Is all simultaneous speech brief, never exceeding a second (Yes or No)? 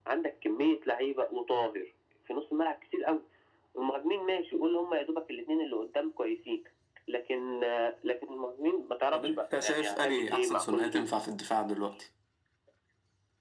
No